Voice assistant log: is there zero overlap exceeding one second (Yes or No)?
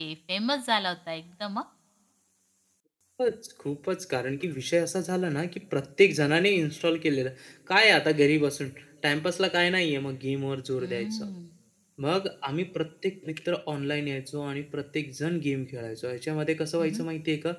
Yes